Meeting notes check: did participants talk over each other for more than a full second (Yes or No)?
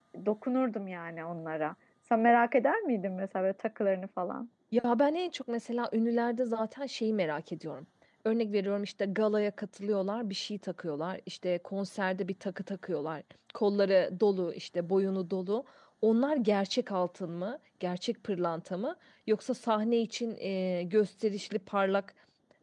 No